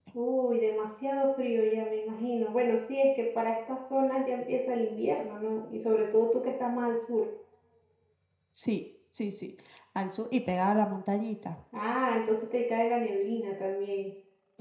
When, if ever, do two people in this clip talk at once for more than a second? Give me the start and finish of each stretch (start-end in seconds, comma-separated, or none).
none